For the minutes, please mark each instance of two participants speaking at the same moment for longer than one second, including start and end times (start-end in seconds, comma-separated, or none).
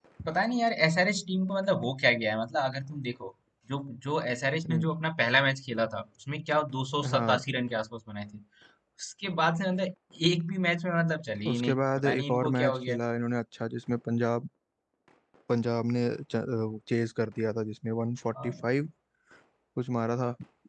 11.5-13.0